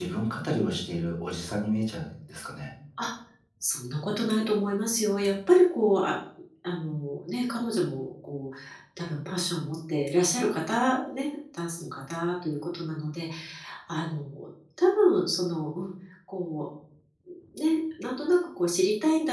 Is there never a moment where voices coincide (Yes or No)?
Yes